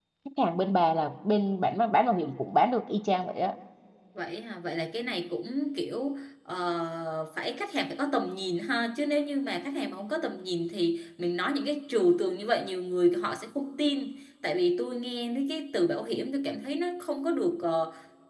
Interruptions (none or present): none